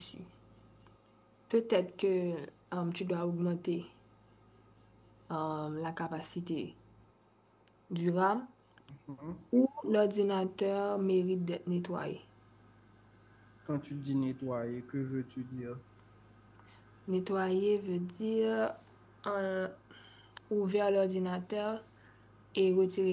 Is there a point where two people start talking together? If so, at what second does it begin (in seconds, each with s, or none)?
none